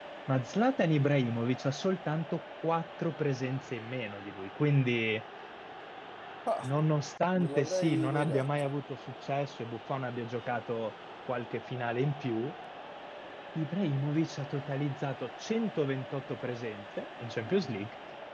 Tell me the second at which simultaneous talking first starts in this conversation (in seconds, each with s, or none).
7.3 s